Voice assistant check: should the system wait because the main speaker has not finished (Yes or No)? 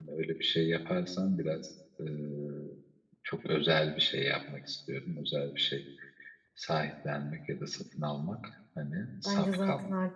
No